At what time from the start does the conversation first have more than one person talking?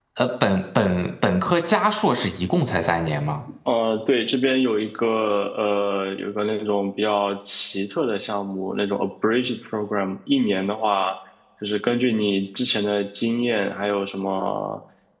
none

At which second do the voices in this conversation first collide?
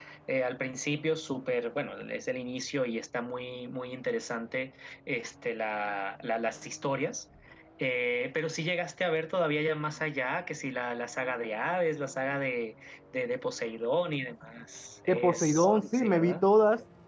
15 s

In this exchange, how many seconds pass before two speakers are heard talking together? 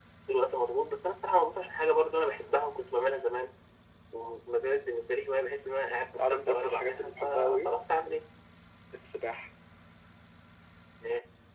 6 s

